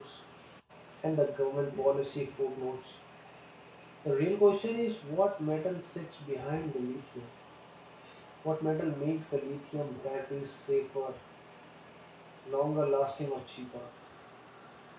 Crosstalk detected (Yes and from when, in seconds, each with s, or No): No